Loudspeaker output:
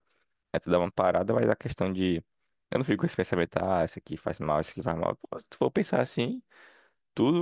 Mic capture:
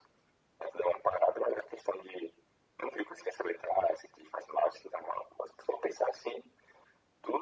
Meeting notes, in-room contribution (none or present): none